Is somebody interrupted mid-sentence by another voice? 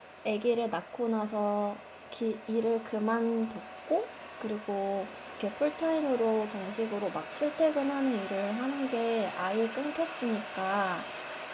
No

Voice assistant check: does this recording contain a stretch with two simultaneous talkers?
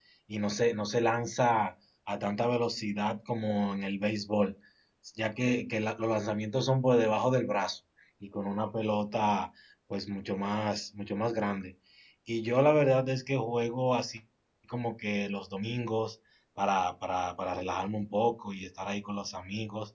No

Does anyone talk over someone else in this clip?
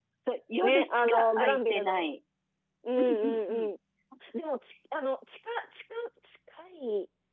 Yes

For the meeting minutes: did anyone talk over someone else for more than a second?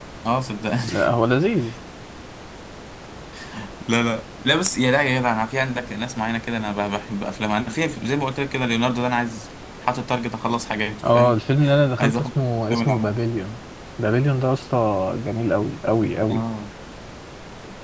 No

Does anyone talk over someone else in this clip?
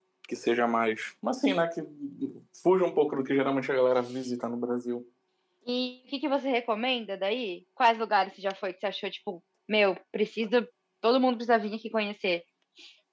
No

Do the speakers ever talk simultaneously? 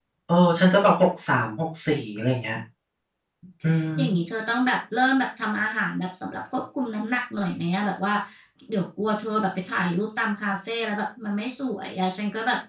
No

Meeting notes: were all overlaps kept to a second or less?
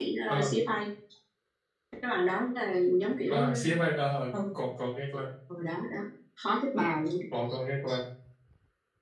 Yes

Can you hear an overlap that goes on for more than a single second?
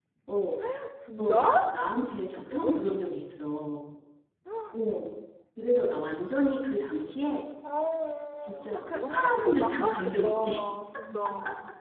Yes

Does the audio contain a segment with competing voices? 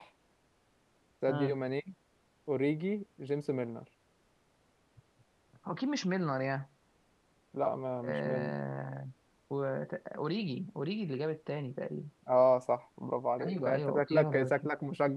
Yes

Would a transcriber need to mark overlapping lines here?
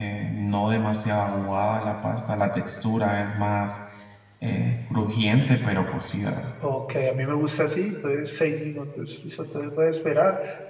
No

